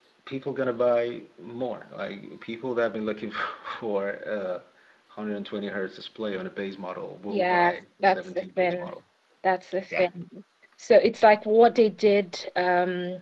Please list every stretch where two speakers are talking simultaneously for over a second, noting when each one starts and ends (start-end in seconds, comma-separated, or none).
7.3-8.9